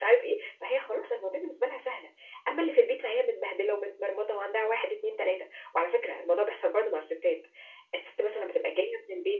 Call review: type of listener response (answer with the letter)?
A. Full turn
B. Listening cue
B